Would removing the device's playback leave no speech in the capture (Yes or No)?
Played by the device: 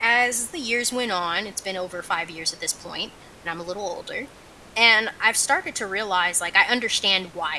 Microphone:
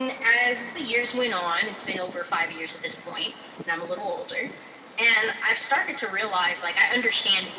Yes